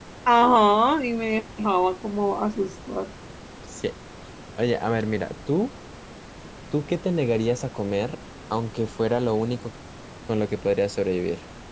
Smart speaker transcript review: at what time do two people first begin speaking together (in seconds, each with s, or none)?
none